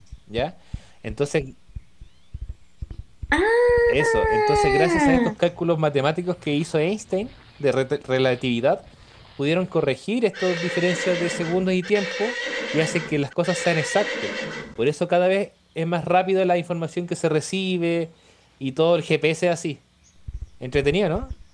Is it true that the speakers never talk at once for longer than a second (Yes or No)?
No